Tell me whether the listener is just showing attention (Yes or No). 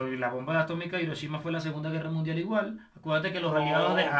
Yes